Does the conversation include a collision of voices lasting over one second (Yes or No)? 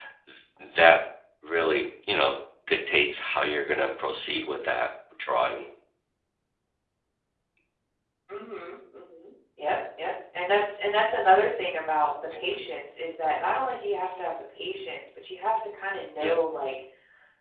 No